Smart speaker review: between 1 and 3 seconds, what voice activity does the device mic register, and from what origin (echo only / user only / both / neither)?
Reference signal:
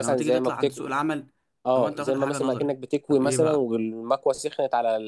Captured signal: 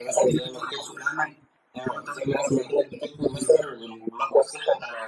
echo only